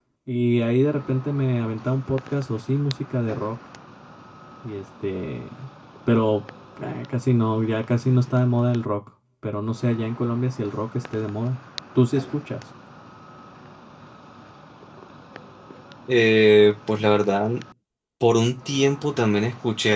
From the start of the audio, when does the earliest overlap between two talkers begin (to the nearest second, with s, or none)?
none